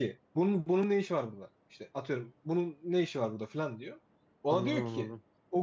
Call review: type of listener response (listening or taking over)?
listening